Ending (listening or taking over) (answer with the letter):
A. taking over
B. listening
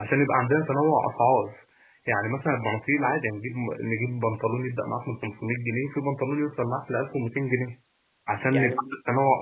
B